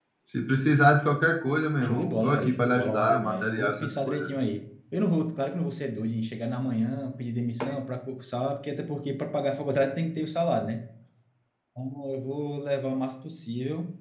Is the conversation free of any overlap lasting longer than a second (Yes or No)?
No